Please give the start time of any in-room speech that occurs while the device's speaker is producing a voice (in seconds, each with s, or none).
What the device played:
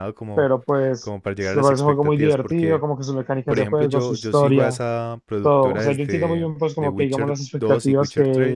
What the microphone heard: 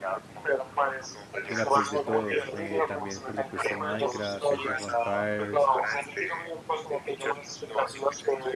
1.5 s